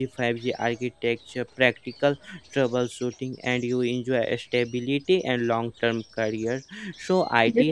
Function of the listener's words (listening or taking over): listening